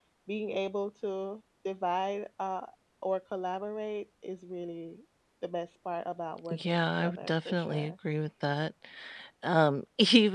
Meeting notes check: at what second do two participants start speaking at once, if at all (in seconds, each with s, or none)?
6.5 s